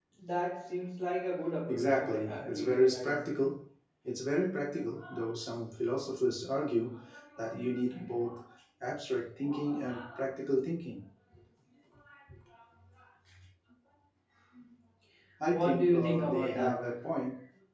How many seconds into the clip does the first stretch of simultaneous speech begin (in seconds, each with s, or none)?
1.7 s